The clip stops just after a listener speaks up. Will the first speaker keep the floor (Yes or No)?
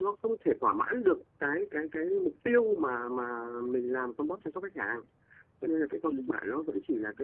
Yes